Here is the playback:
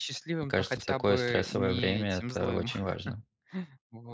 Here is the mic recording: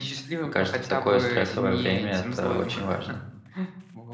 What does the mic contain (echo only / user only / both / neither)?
echo only